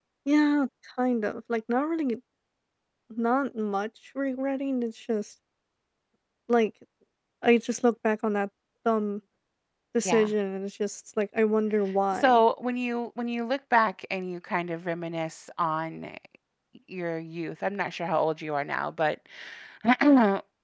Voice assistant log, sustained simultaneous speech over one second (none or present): none